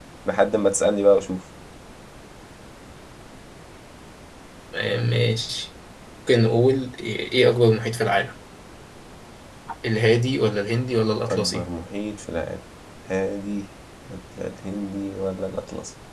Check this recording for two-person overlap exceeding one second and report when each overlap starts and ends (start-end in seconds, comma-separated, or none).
none